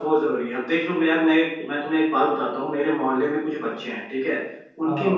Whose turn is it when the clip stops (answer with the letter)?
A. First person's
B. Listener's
A